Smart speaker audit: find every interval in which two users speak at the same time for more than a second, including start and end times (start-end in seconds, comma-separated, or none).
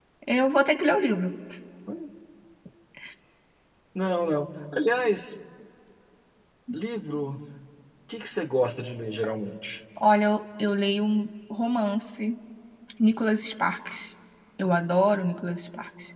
none